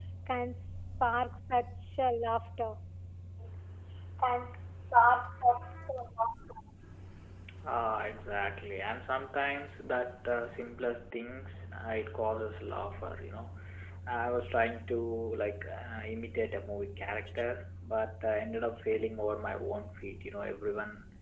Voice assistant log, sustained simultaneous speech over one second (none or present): none